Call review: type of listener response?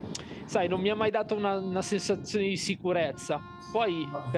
listening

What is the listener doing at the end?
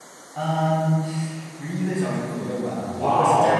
listening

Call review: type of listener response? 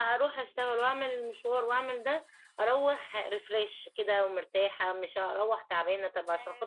taking over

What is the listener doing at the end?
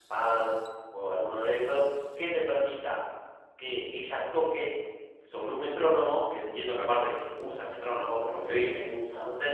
listening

